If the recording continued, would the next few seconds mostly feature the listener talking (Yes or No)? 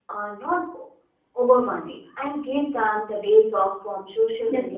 Yes